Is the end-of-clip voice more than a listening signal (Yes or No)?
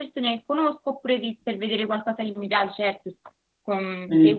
No